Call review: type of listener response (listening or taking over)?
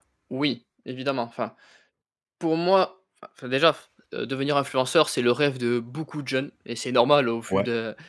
listening